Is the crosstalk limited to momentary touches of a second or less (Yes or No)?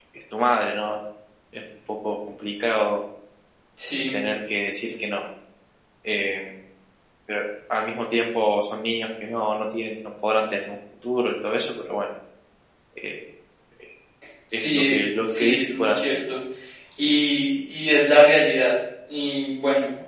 No